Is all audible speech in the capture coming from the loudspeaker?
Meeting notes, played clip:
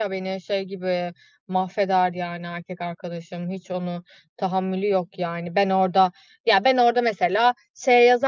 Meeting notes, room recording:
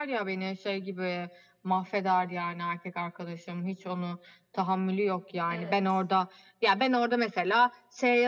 No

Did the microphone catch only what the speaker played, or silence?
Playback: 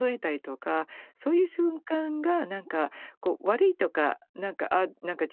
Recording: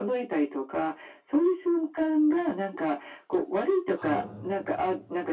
No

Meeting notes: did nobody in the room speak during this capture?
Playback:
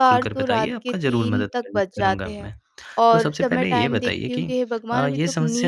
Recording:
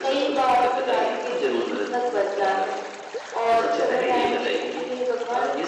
Yes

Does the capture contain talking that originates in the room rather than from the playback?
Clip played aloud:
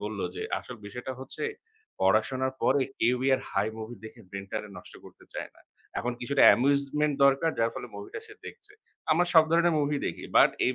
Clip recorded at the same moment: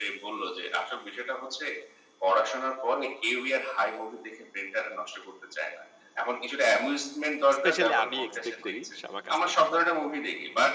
Yes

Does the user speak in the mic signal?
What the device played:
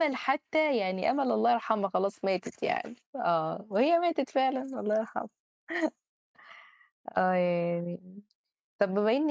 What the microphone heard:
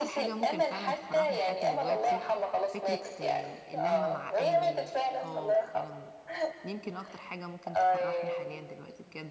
Yes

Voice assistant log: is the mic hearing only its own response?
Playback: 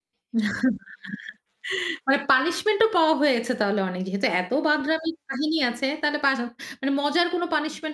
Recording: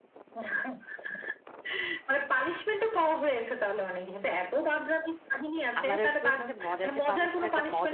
No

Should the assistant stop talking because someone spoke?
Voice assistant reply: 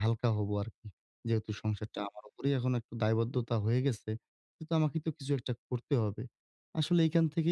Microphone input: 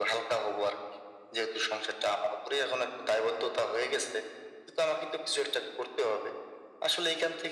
No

